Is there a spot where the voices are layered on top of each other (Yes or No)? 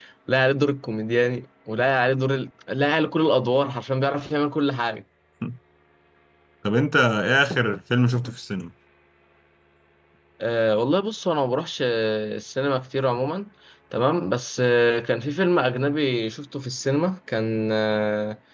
No